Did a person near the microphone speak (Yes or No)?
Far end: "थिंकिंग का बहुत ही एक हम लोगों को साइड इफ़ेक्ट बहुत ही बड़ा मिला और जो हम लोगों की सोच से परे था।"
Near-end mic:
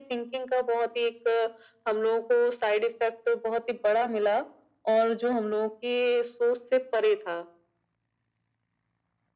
No